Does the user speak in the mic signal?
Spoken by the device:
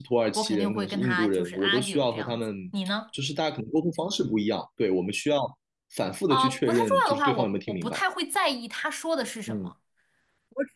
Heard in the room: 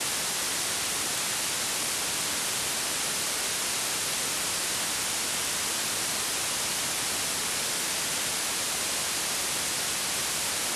No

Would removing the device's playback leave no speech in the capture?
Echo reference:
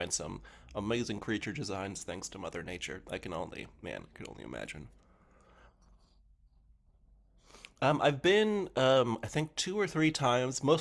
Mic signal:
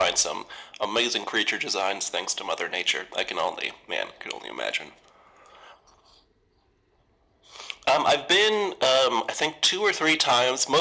Yes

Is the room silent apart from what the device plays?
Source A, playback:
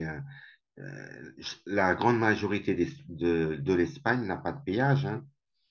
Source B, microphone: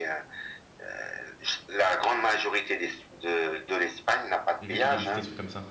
No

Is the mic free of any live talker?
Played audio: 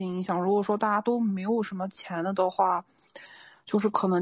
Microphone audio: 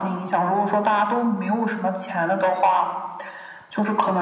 Yes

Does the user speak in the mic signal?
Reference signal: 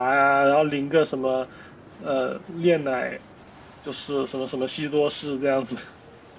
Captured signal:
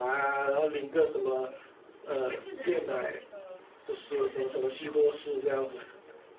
Yes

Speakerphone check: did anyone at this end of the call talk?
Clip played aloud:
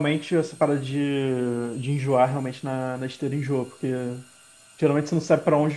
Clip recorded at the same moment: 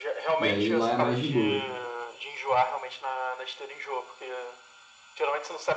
Yes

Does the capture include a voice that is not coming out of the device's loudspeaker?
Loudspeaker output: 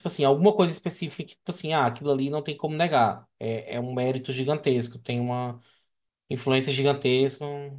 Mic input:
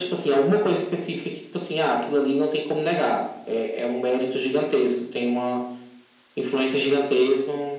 No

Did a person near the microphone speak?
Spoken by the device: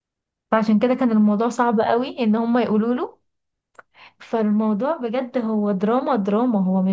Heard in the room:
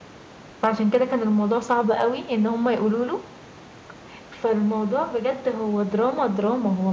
No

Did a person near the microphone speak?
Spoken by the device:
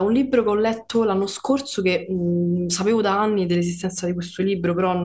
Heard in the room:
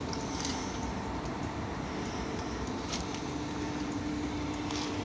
No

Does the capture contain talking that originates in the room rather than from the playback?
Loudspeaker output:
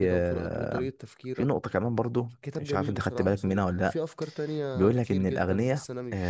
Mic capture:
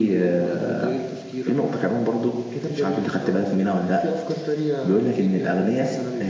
No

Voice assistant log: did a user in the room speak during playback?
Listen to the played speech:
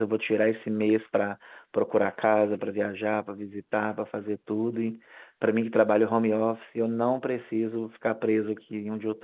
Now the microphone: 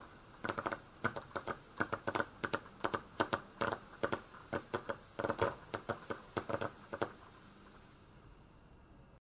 No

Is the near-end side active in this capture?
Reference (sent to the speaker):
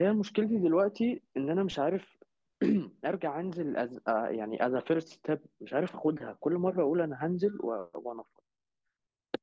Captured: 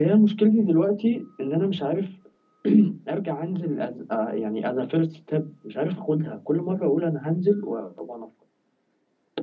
No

